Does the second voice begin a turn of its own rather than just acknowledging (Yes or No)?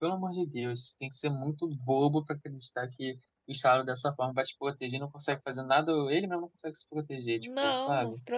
Yes